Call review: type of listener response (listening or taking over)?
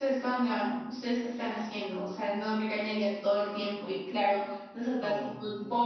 listening